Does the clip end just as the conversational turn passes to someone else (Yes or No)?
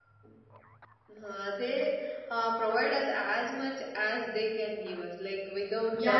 Yes